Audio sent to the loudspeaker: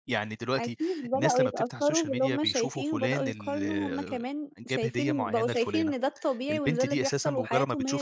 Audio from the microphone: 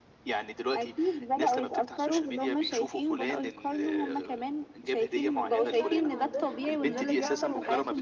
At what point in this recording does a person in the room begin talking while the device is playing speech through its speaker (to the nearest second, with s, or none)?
6 s